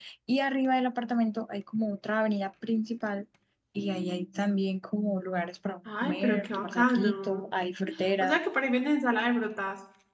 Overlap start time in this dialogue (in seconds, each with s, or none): 6.0 s